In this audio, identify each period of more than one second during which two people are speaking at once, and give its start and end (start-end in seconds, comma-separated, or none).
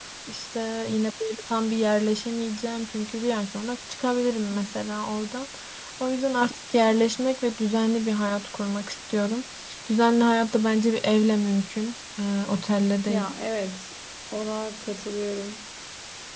none